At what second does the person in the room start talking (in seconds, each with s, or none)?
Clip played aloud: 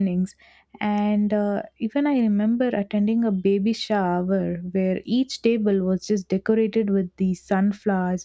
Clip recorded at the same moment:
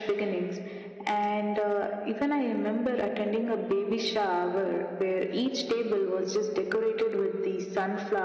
none